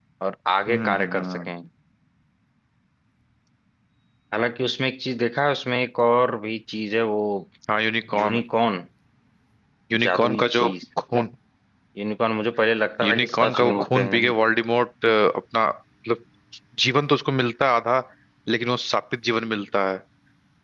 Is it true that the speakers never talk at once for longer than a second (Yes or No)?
No